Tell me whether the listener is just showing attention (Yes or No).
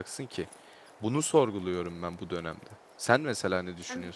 No